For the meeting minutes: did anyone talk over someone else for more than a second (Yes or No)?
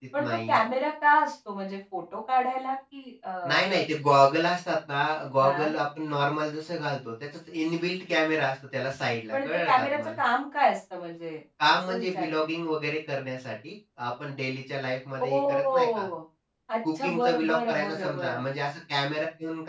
Yes